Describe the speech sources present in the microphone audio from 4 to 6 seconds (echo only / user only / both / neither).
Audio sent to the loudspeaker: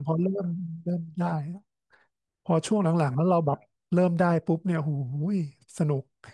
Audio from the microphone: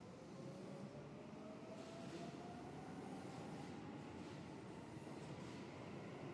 neither